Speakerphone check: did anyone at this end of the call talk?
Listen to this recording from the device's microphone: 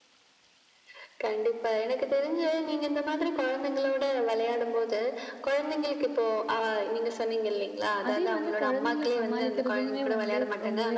Yes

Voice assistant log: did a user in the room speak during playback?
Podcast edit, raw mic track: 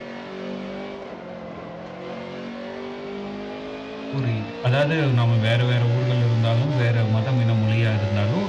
Yes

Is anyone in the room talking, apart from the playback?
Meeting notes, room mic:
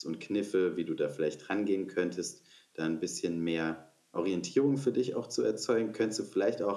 Yes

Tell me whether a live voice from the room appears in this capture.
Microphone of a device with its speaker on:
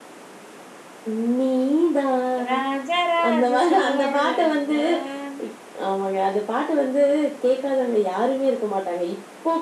Yes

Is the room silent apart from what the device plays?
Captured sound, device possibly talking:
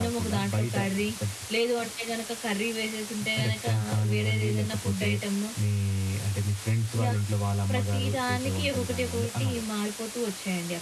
Yes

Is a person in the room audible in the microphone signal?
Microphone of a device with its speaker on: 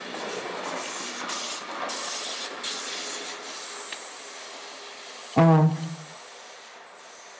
Yes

